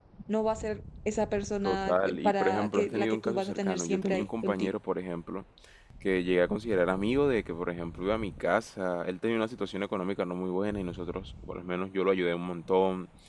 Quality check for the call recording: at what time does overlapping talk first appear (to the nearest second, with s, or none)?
2 s